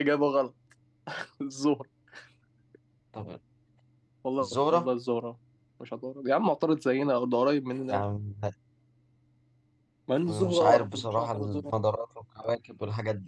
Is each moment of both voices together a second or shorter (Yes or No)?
No